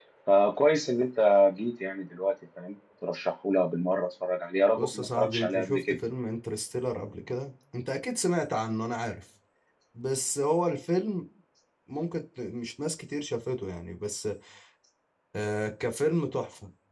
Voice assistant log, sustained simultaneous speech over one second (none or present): present